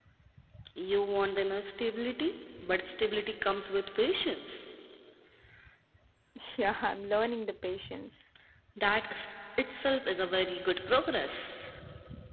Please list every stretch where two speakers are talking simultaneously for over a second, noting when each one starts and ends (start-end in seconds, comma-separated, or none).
none